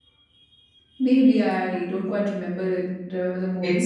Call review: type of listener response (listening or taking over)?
taking over